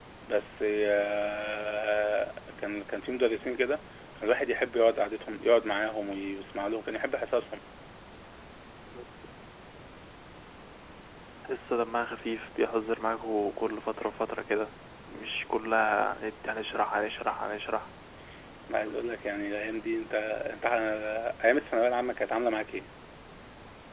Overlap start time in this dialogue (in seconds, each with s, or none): none